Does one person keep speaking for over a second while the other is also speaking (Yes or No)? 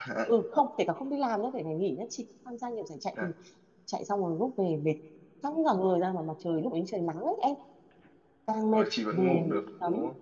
Yes